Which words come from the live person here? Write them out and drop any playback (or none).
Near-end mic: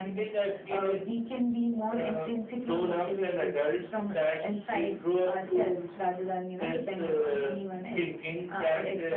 none